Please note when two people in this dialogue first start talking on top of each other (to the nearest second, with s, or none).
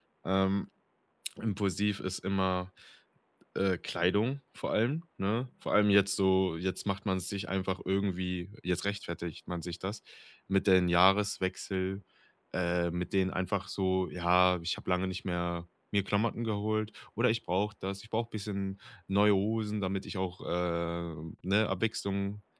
none